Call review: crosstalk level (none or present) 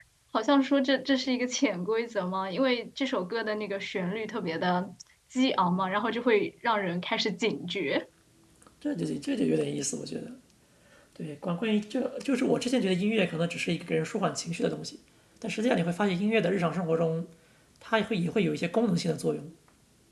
none